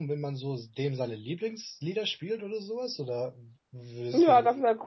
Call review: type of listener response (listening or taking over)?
taking over